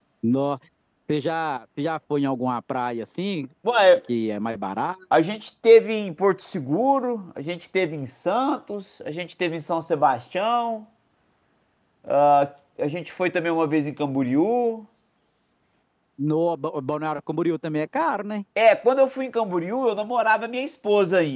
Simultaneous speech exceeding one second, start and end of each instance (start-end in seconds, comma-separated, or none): none